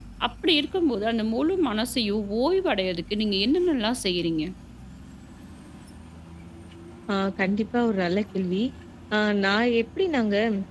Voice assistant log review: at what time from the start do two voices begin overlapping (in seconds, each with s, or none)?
none